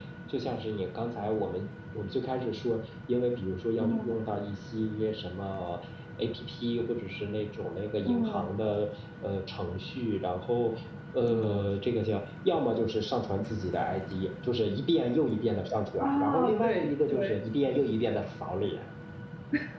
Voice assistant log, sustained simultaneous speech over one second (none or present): present